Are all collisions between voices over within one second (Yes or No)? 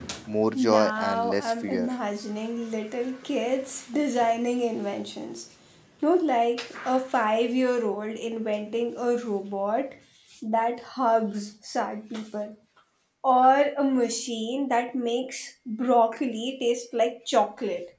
No